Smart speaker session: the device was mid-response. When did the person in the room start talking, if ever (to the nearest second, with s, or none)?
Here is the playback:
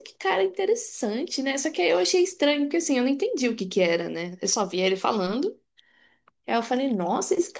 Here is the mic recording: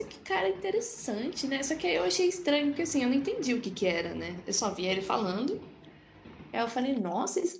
none